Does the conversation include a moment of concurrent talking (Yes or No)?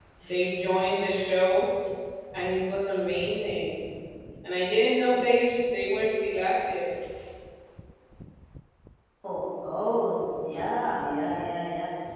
No